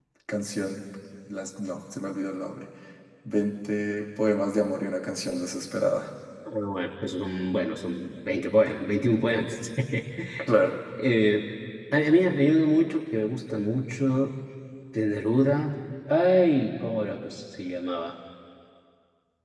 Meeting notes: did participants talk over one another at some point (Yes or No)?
No